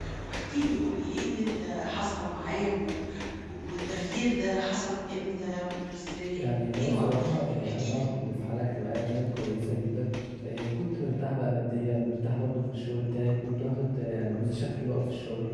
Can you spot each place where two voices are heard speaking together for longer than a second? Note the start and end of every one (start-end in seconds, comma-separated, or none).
6.4-8.0